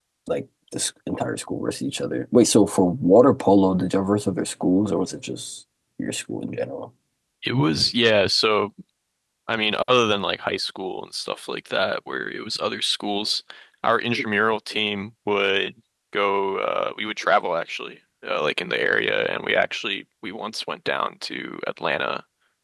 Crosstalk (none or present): none